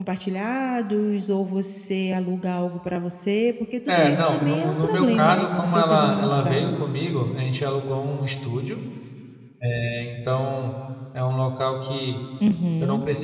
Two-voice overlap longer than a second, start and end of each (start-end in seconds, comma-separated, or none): 3.9-6.7